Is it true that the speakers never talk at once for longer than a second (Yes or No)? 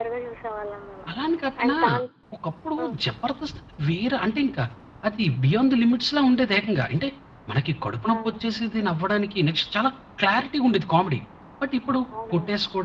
Yes